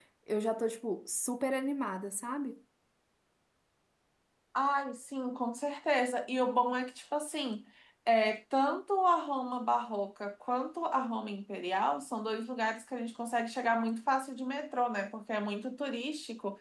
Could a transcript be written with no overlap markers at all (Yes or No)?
Yes